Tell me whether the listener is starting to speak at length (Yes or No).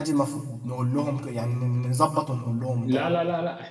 Yes